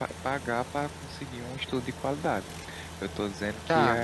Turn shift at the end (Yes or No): Yes